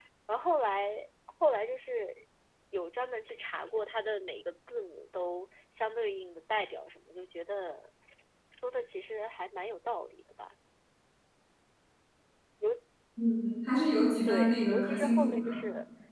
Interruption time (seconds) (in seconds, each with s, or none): 14.2 s